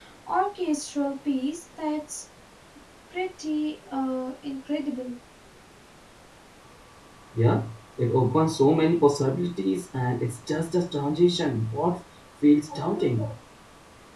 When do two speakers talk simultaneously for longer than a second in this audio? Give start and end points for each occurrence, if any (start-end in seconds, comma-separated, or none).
none